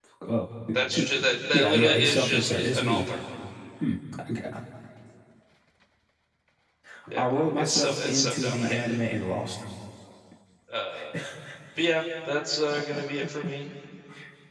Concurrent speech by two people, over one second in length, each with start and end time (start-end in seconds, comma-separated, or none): 1.5-3.0, 7.2-8.9